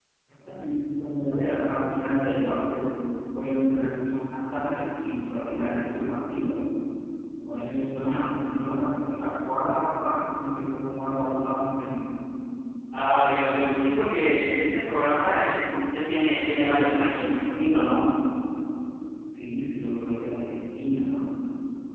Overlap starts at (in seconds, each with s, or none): none